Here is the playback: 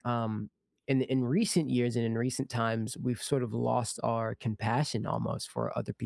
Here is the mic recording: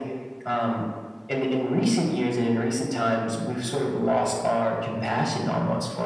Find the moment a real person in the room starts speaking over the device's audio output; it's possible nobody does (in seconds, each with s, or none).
none